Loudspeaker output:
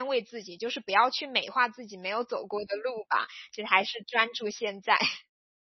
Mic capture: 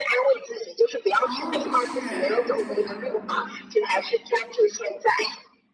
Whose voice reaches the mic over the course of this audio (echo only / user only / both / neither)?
both